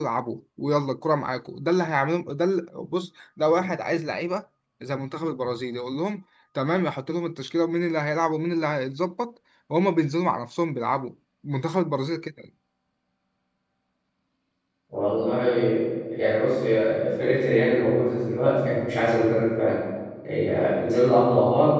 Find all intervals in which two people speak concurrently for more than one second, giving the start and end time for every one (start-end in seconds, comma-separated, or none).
none